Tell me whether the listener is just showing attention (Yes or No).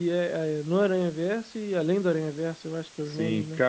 No